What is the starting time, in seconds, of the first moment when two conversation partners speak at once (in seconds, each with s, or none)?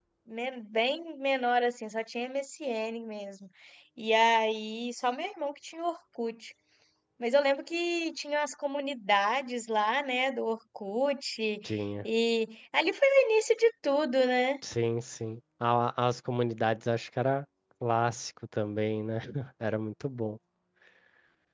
none